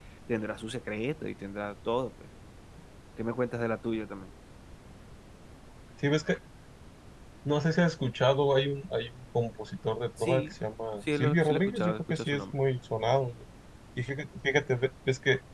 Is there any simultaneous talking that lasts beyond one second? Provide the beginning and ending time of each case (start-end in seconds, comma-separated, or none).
11.2-12.4